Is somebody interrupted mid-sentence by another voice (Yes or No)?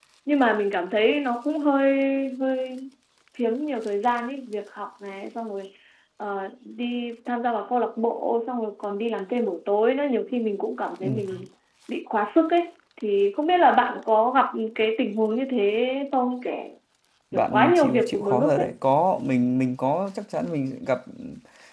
Yes